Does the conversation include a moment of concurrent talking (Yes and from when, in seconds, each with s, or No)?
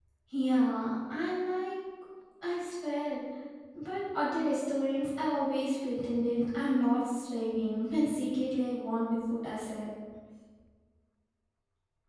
No